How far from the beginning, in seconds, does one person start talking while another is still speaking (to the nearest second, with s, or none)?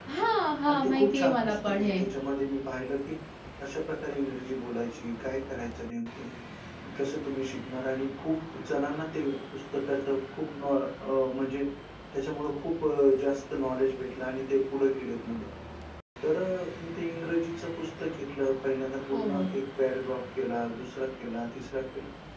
1 s